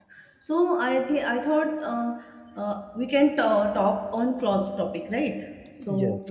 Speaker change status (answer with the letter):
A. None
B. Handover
A